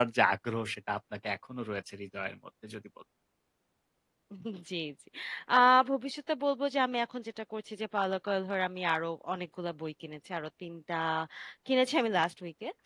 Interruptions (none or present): none